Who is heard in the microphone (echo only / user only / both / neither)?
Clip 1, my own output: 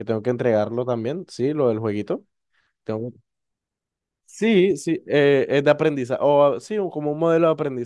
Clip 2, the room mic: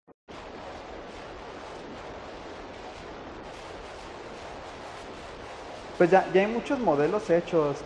user only